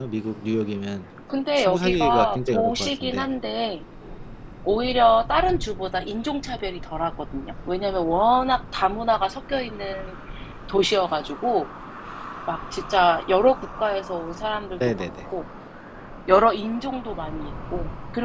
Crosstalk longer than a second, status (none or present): present